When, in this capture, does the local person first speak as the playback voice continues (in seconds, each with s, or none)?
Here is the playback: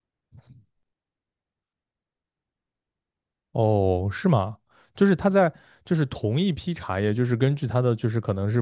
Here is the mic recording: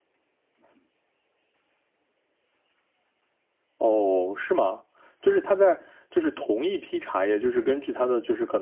none